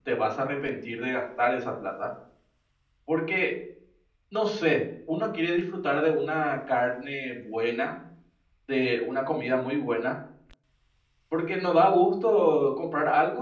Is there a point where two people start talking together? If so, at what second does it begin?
none

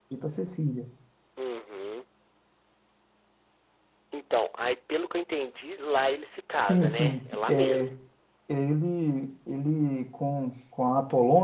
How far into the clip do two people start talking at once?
7 s

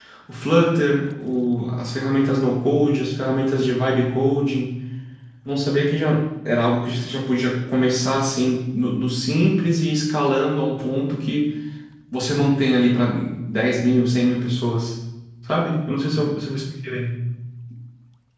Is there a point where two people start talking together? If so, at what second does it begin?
none

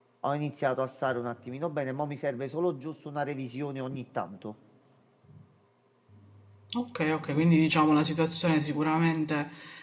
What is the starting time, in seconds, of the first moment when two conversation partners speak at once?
none

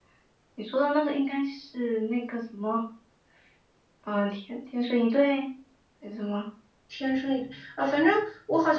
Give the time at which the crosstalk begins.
none

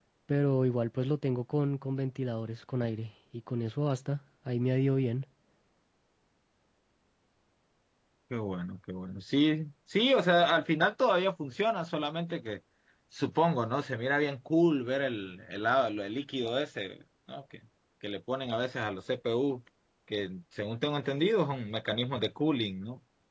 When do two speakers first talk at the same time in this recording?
none

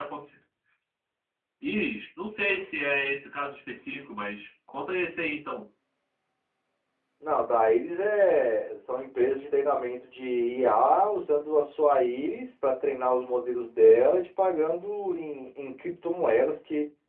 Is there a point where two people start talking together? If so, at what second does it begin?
none

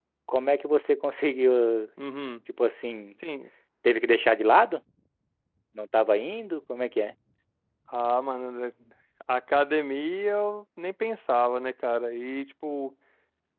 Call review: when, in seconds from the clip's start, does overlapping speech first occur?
none

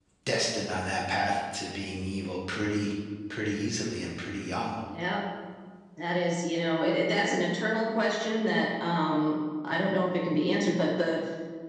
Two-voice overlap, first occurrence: none

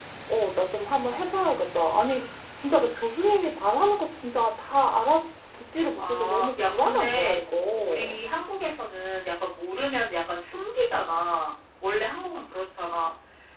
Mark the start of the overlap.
6 s

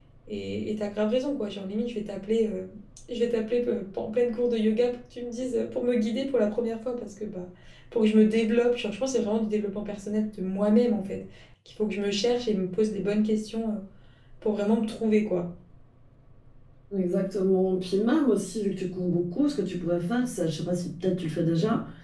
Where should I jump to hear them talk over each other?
none

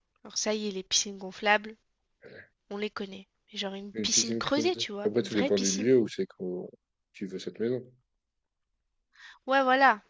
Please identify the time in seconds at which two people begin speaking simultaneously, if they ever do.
4 s

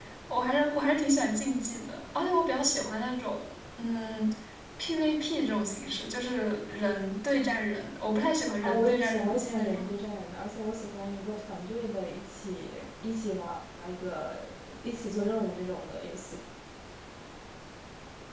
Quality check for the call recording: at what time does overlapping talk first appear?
9 s

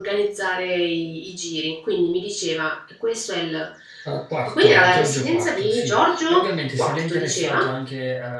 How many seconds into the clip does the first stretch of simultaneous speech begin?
4 s

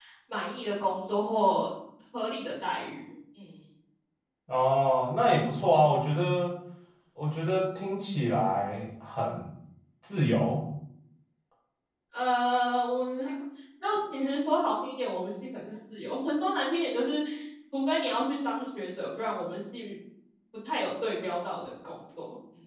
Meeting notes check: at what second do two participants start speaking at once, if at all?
none

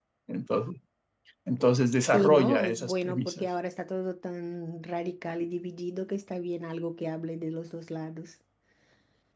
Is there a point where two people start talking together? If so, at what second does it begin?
2 s

